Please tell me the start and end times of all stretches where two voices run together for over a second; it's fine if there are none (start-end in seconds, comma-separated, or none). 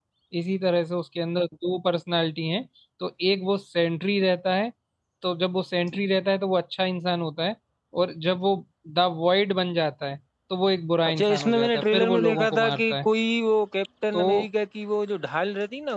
11.1-13.1